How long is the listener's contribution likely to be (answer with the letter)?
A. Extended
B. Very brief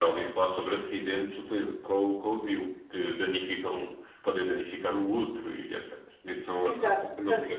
A